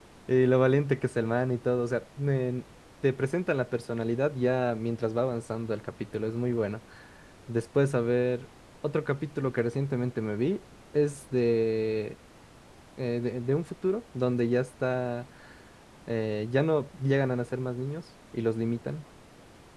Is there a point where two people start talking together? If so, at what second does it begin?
none

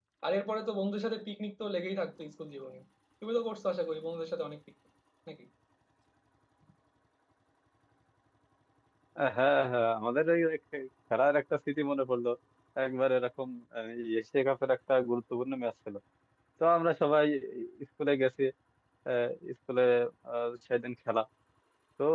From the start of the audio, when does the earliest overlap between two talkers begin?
none

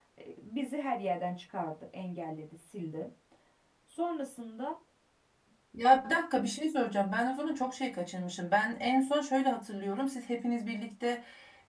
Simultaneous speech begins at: none

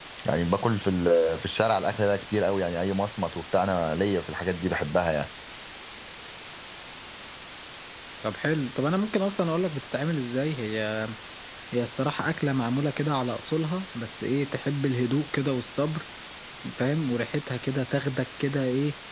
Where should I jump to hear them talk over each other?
none

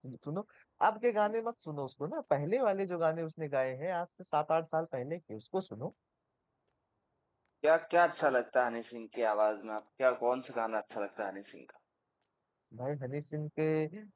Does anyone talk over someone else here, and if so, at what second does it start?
none

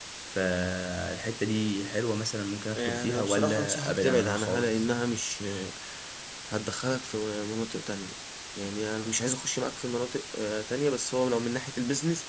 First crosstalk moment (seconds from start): 2.8 s

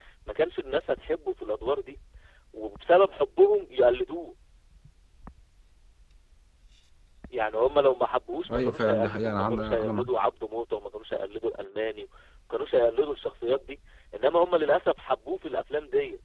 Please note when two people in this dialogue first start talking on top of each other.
8.4 s

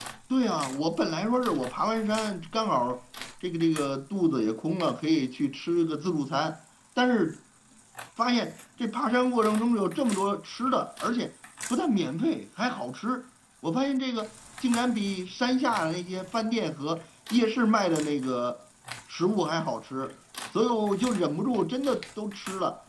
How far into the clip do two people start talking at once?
none

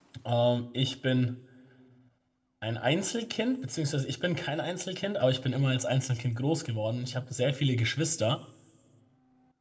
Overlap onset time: none

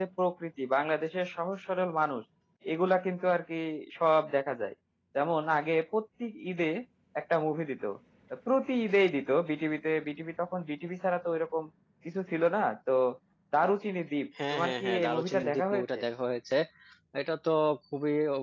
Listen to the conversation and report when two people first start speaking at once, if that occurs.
14.4 s

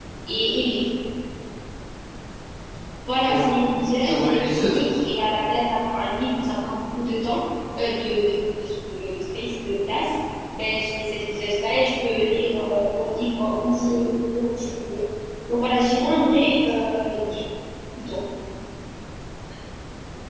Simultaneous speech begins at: 3.2 s

